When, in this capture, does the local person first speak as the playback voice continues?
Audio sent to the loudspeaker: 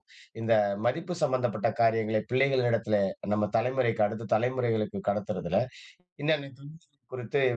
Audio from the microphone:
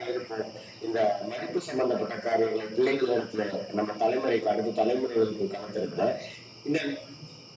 none

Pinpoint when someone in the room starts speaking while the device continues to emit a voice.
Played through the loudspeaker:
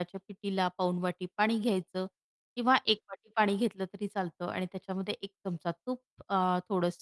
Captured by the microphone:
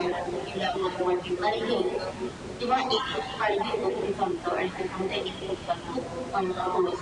none

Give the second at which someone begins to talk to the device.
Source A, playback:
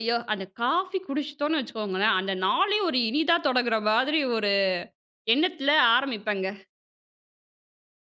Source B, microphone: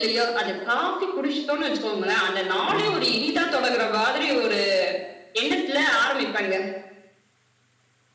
2.5 s

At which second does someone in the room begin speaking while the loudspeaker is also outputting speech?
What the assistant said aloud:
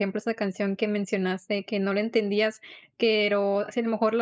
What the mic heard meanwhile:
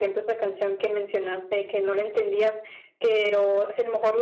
none

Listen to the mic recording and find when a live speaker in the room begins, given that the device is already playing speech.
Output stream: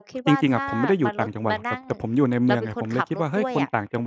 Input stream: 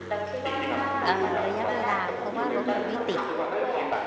1.1 s

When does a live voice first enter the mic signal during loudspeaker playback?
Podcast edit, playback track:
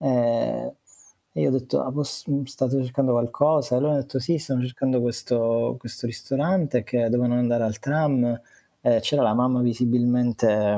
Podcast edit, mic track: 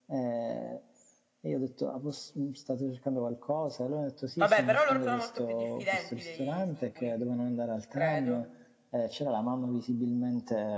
4.4 s

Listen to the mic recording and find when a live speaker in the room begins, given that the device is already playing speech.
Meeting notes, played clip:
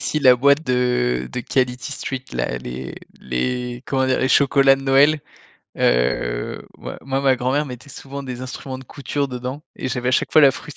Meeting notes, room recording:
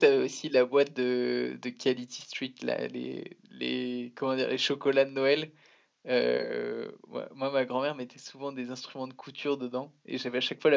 none

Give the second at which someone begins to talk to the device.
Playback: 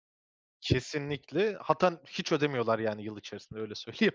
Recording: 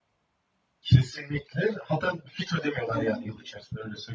2.9 s

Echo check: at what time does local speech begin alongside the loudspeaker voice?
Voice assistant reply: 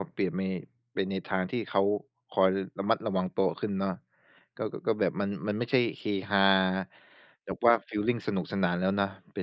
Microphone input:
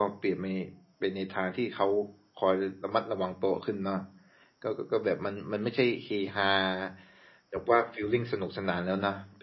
none

